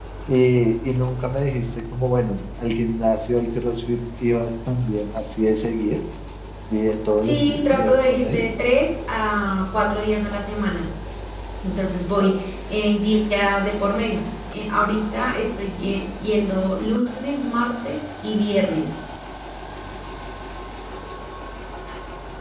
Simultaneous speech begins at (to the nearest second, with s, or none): 7 s